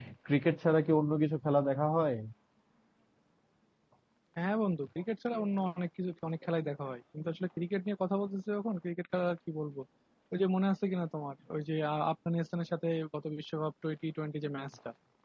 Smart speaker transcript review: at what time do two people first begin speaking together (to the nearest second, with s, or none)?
none